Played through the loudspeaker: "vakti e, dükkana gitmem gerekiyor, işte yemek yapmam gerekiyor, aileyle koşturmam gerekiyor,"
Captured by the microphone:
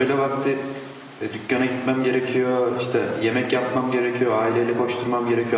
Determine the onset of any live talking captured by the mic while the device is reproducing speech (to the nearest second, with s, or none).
none